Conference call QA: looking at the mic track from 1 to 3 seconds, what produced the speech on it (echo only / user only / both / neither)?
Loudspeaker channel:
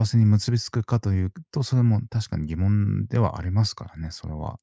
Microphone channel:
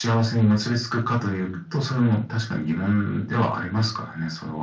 echo only